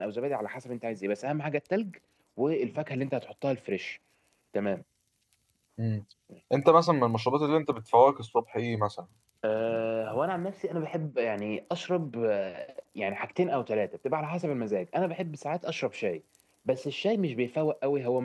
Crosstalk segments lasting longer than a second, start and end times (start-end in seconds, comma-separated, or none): none